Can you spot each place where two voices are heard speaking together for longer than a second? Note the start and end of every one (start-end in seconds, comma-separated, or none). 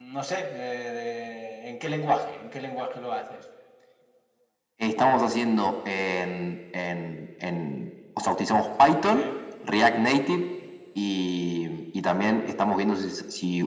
none